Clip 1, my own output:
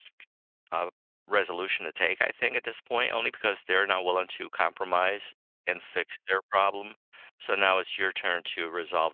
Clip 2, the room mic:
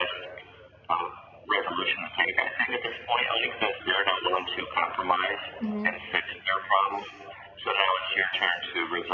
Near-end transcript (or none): Mhm.